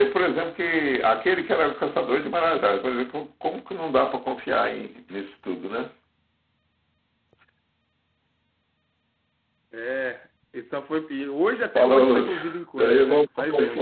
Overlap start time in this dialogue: 11.8 s

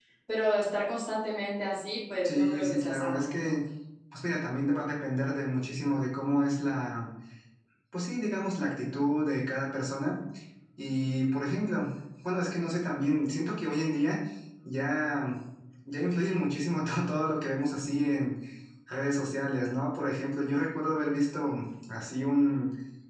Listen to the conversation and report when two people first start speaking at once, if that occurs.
2.2 s

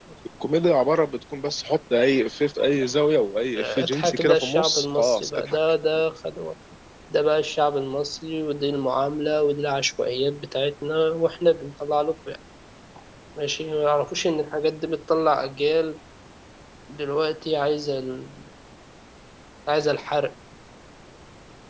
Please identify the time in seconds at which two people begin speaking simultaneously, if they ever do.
3.6 s

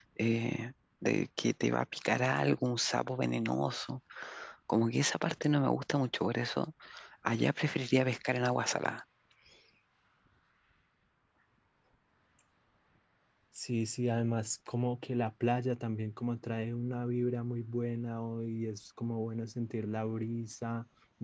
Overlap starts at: none

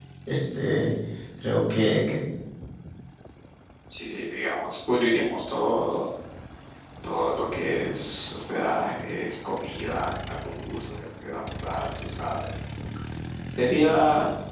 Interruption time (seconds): none

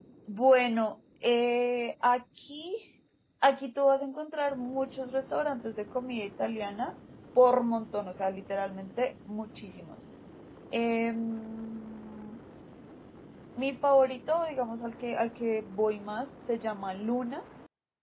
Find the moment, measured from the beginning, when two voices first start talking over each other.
none

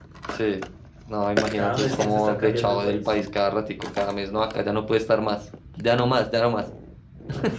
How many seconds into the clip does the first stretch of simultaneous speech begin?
1.5 s

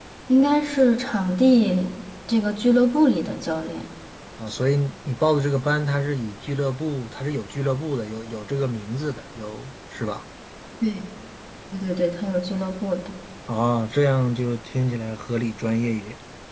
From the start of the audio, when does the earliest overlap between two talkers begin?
none

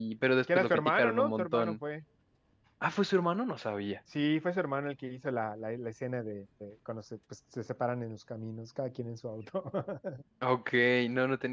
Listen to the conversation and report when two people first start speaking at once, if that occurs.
0.6 s

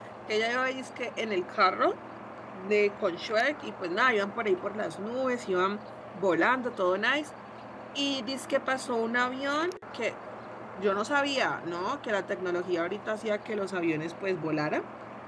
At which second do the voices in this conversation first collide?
none

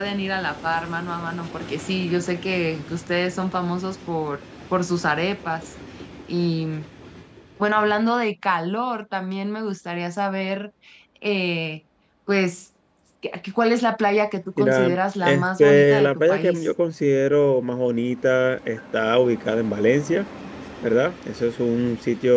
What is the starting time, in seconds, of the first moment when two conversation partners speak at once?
14.6 s

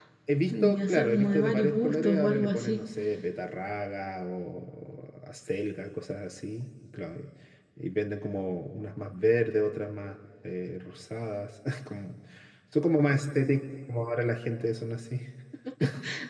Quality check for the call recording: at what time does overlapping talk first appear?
0.5 s

